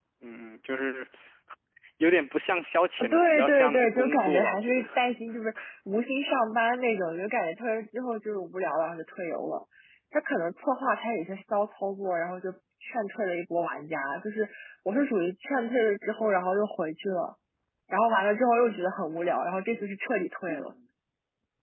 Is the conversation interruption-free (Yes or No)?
No